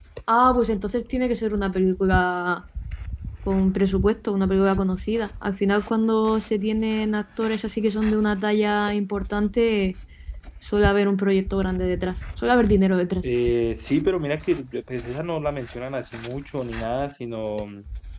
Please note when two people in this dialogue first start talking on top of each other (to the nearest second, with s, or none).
none